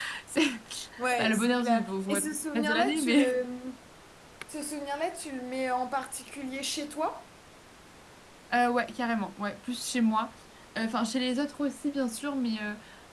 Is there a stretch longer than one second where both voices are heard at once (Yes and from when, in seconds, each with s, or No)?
Yes, from 1.2 s